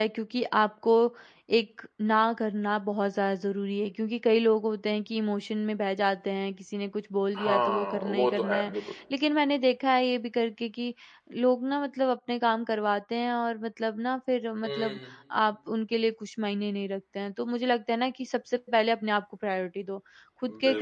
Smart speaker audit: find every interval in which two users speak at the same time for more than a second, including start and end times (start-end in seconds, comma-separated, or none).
7.4-8.7